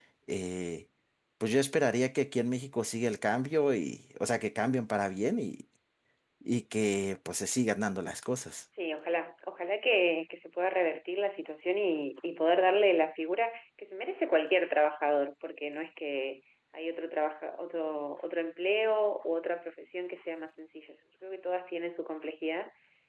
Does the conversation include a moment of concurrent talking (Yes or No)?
No